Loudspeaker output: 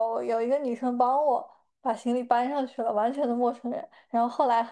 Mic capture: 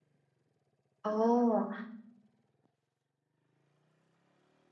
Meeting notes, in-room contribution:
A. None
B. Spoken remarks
B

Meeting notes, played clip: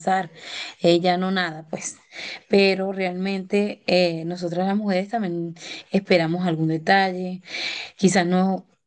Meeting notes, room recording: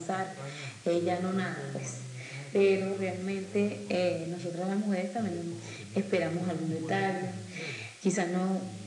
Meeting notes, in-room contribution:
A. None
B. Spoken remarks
B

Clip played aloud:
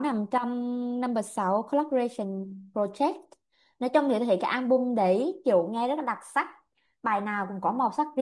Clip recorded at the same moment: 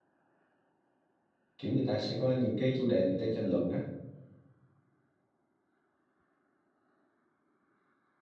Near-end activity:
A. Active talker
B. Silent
A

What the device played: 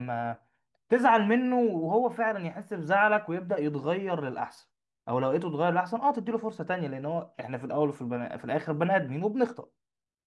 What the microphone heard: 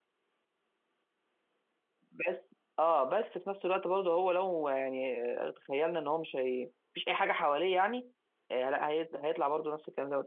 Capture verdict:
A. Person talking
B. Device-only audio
A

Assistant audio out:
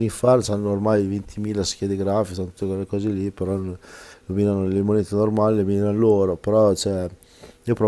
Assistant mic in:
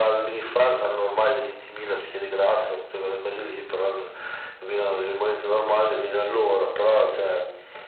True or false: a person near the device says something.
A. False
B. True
A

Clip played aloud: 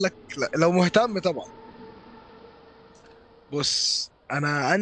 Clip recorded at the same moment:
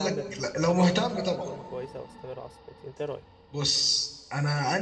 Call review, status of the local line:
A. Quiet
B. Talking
B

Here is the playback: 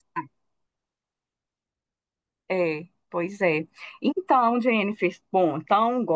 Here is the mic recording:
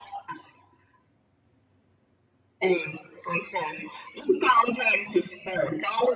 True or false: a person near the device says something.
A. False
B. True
A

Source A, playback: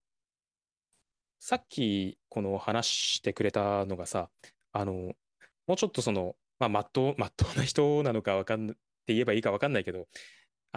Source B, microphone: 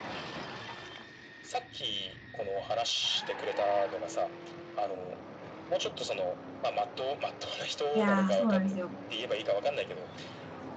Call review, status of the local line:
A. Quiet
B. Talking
B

